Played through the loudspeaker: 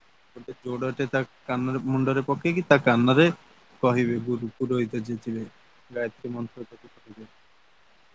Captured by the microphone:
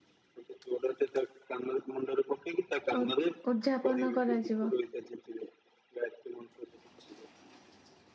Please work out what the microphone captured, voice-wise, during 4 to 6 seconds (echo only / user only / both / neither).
both